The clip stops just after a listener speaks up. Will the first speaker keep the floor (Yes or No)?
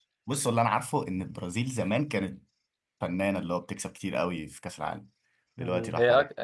No